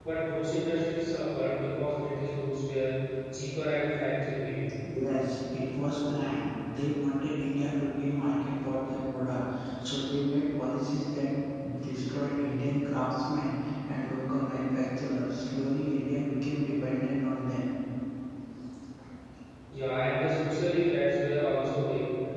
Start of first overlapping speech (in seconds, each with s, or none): none